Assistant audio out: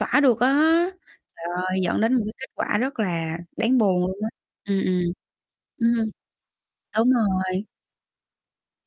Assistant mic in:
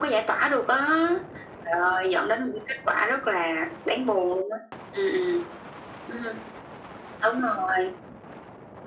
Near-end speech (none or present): none